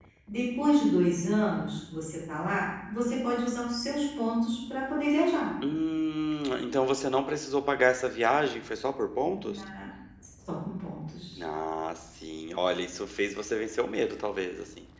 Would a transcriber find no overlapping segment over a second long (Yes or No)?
Yes